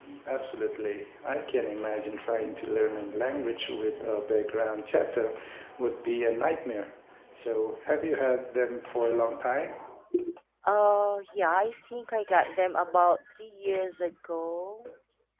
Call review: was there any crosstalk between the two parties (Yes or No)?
No